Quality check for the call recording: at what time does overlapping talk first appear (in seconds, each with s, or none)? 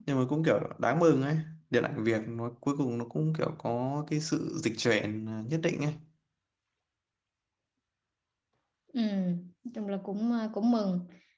none